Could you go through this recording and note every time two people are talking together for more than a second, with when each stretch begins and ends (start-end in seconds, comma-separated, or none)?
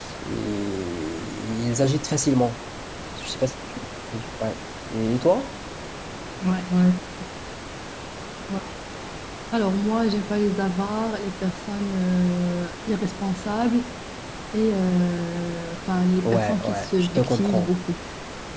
16.2-17.7